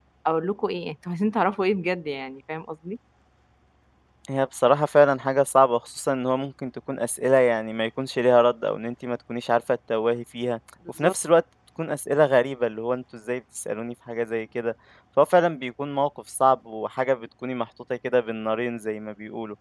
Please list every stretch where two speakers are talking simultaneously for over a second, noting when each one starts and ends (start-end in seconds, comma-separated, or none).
none